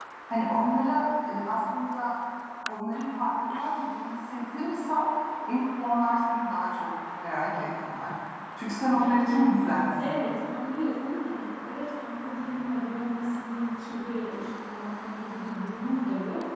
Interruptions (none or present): present